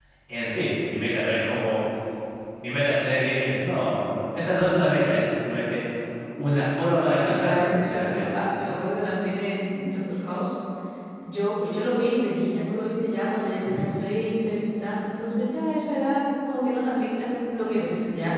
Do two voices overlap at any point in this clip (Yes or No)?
Yes